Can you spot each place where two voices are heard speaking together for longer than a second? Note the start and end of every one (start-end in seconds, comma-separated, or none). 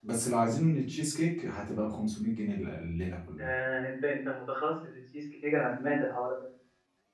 none